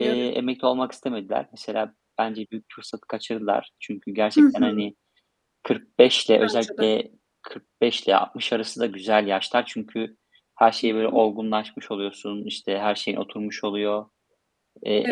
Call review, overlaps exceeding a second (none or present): none